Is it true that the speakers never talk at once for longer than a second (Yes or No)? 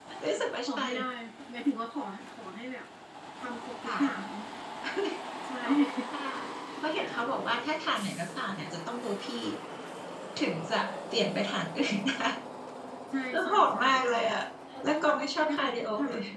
No